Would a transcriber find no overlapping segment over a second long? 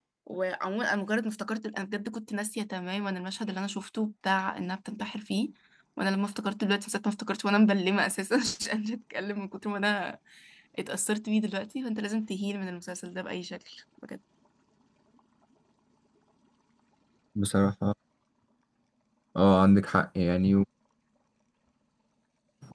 Yes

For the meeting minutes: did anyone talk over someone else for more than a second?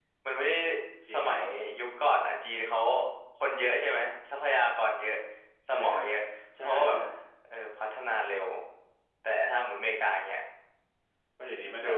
No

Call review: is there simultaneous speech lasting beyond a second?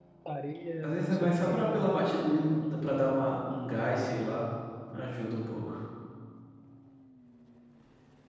Yes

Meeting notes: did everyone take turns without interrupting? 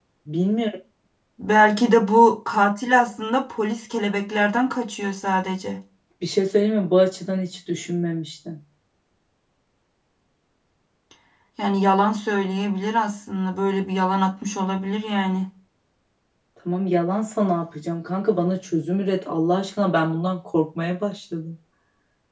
Yes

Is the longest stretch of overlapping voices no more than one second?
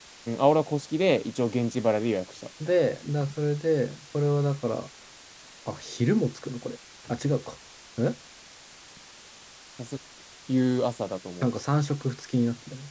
Yes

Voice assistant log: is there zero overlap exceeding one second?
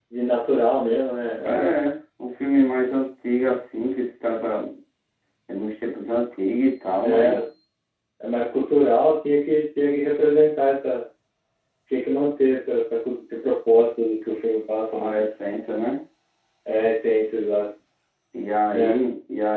Yes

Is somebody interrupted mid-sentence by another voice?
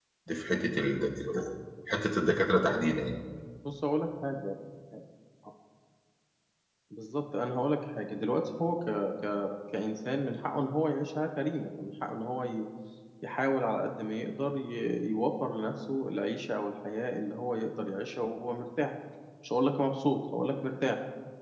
No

